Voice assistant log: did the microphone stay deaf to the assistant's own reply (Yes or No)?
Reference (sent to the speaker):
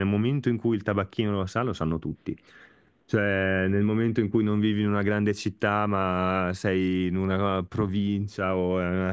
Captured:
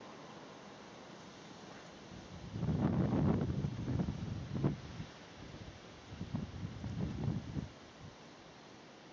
Yes